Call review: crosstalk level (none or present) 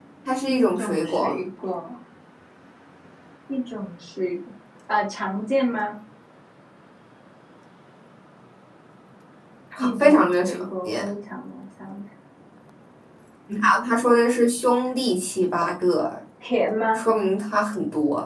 present